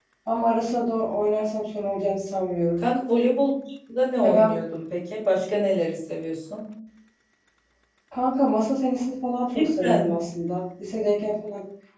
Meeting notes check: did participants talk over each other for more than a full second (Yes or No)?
No